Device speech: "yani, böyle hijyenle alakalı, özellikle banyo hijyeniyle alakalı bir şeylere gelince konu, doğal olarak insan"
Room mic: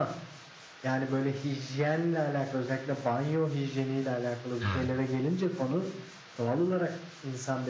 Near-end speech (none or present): present